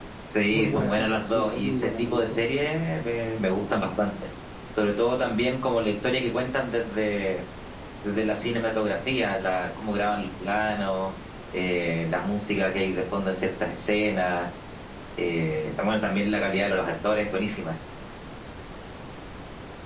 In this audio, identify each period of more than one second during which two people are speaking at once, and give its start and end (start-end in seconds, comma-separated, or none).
0.5-2.5